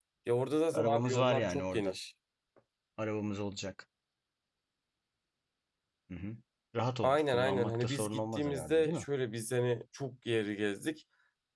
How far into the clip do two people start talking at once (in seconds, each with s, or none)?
0.7 s